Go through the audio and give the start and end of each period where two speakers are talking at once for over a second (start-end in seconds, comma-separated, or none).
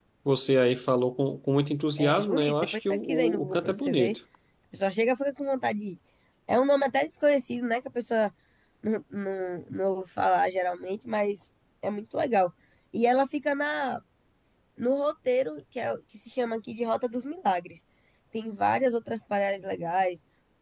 2.0-4.2